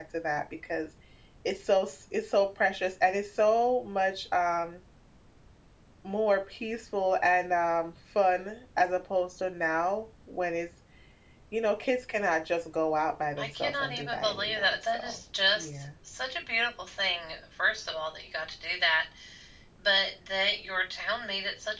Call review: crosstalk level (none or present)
present